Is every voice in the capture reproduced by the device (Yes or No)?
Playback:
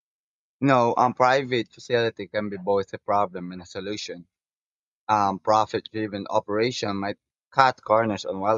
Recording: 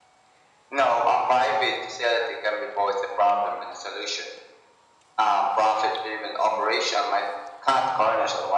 Yes